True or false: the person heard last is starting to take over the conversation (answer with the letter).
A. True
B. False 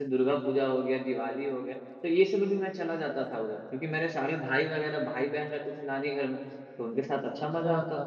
B